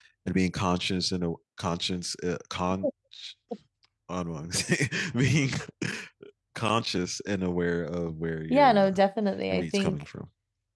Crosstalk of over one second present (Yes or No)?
No